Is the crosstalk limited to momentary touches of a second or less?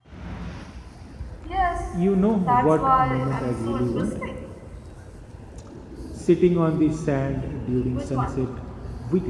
No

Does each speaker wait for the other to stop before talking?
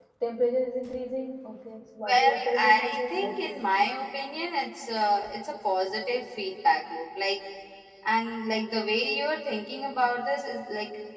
No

